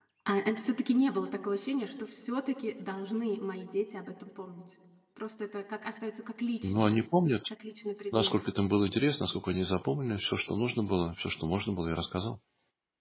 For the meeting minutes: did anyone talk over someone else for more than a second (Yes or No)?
No